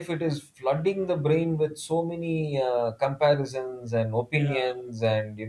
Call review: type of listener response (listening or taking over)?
listening